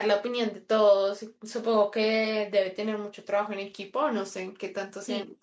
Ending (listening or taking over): taking over